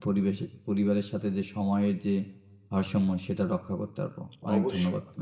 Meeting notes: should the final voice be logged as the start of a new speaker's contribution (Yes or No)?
Yes